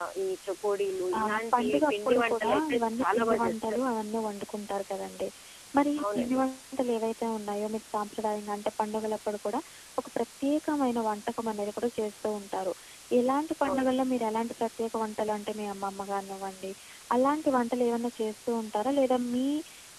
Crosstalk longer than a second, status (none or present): present